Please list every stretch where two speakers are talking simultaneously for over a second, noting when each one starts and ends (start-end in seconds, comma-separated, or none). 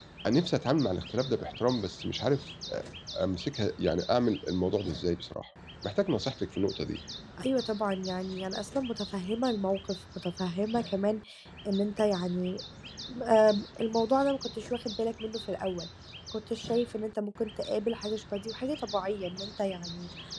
none